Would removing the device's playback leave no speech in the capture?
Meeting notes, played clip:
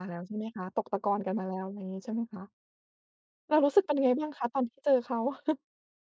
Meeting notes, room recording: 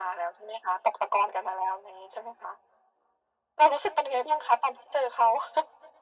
Yes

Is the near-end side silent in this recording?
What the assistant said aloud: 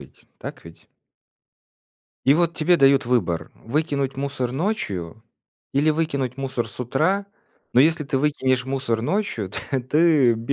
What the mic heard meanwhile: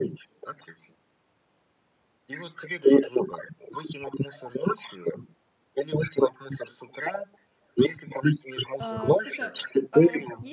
No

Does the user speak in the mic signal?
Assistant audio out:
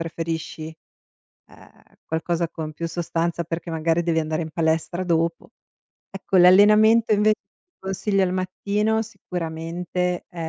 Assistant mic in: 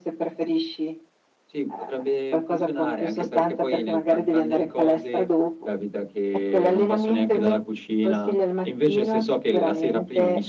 Yes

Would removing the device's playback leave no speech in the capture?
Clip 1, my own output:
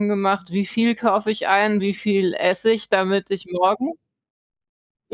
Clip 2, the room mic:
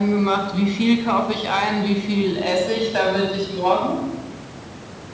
Yes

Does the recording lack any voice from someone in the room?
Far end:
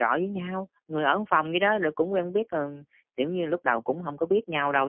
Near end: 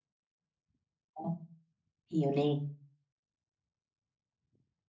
No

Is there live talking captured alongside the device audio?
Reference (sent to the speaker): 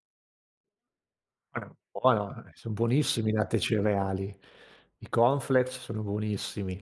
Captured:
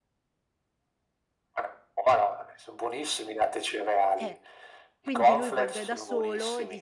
Yes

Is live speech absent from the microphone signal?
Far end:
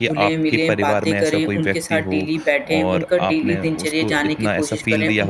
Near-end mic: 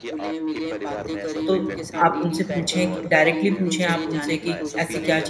No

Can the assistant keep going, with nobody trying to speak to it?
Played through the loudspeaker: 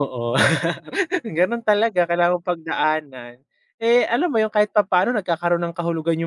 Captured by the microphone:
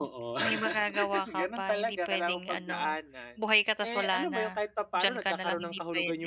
No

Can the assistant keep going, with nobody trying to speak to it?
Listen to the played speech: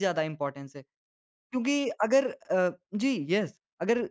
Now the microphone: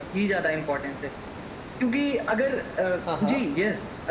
No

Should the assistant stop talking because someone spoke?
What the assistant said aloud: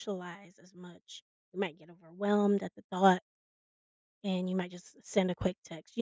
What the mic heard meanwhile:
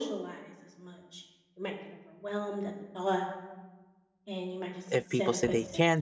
Yes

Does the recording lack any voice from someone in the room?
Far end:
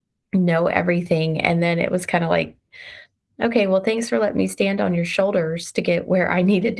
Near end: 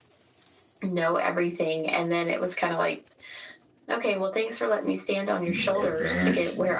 No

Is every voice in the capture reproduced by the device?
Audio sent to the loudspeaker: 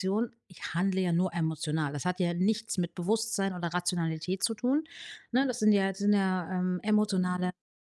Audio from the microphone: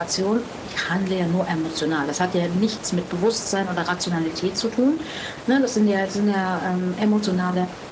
Yes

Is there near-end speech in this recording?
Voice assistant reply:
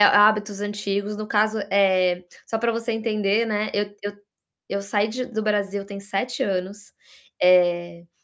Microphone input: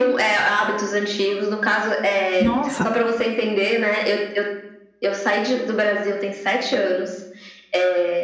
Yes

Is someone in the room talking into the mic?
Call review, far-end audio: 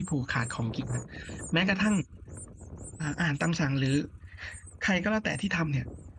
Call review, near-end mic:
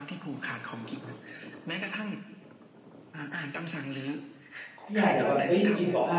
Yes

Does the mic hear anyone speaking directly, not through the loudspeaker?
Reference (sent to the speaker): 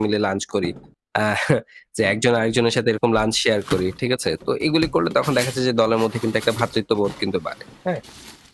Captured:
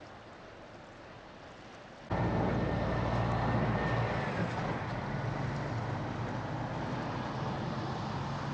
No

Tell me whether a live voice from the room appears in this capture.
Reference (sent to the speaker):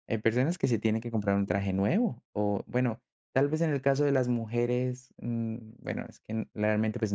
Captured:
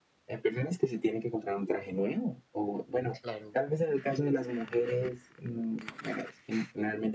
Yes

